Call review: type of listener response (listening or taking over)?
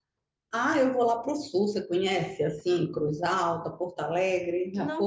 taking over